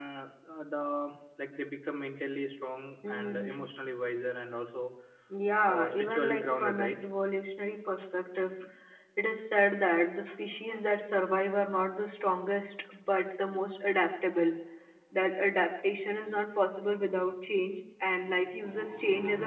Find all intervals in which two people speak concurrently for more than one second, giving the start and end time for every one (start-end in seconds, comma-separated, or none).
5.7-7.0